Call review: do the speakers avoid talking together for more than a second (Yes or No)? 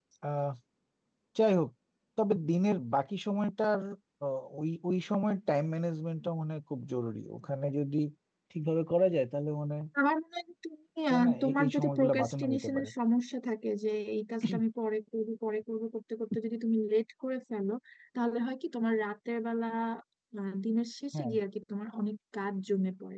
No